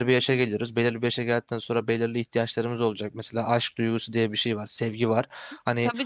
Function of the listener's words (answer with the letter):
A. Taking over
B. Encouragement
A